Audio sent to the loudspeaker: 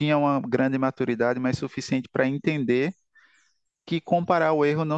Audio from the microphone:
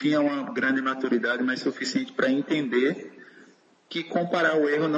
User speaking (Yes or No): No